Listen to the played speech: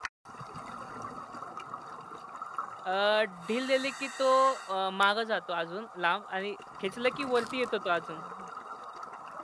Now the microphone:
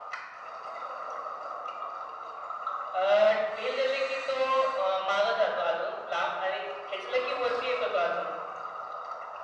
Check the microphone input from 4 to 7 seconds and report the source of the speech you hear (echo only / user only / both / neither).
echo only